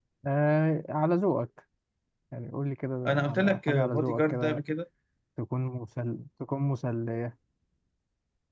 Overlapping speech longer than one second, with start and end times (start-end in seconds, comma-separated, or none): 3.1-4.6